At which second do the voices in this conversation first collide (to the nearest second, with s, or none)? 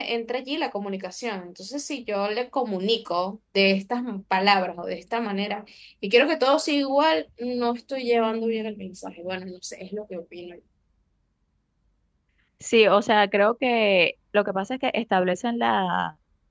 none